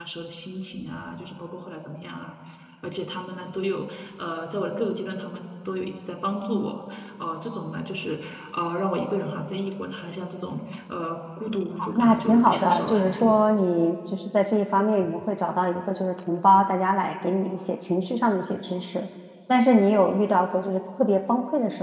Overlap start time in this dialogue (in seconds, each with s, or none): 11.8 s